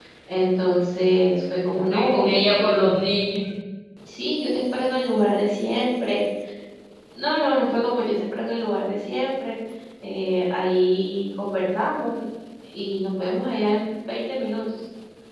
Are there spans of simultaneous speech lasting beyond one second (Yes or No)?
Yes